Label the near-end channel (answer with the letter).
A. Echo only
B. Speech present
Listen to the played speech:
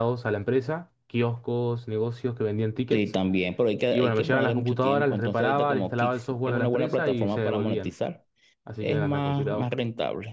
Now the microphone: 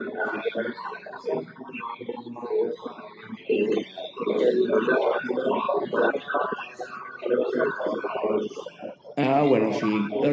B